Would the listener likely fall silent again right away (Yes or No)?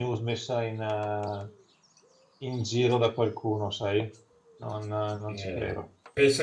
No